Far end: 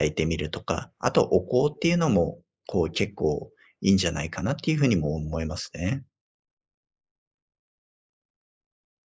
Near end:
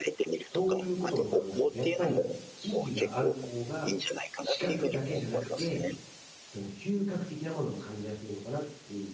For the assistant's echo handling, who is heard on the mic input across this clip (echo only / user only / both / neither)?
both